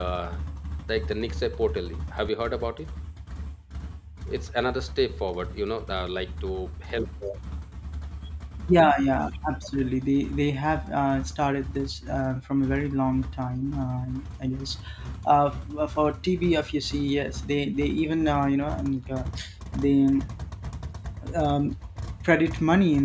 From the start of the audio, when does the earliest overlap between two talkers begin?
none

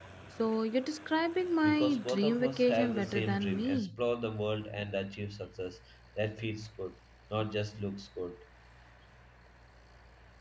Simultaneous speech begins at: 1.6 s

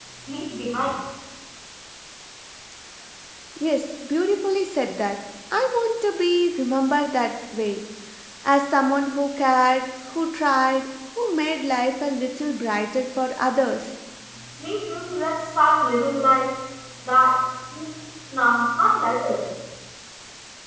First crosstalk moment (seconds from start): none

